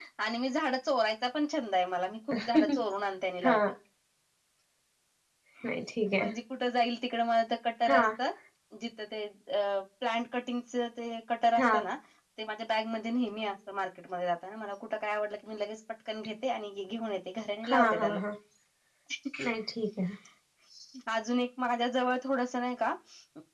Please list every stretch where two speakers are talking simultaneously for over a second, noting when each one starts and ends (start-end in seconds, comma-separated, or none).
none